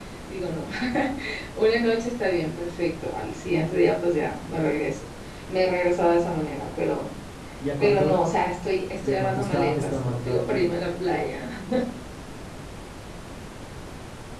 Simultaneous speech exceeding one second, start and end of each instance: 9.0-10.7

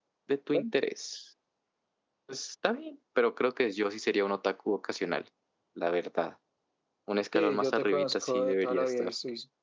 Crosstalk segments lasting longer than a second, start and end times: 7.3-9.1

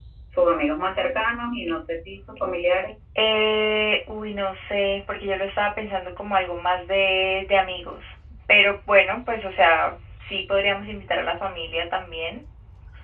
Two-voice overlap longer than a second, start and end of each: none

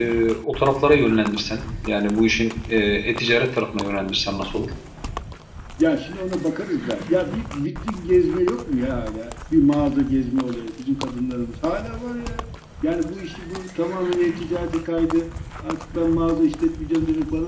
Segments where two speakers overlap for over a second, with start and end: none

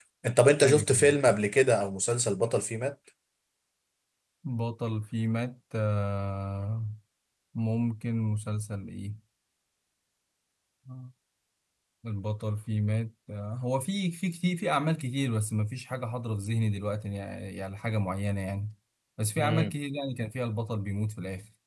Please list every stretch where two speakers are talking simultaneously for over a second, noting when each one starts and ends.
none

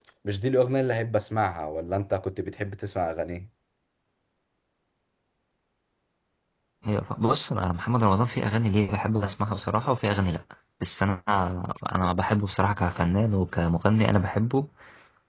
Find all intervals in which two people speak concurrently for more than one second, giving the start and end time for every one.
none

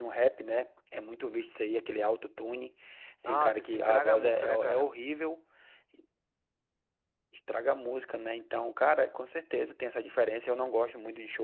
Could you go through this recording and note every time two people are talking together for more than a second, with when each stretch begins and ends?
3.2-4.9

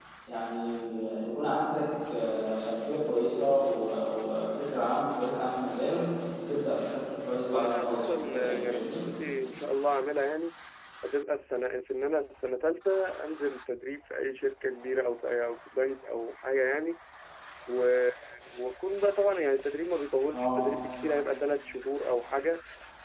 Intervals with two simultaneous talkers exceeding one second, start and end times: 7.5-9.0

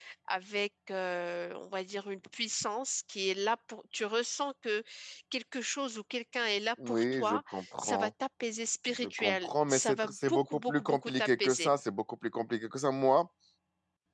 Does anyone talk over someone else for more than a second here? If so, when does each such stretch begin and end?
6.9-8.1, 9.0-11.7

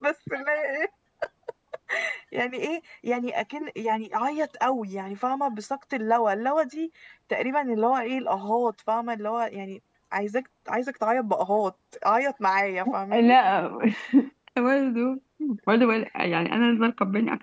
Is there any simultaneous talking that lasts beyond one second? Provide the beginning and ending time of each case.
none

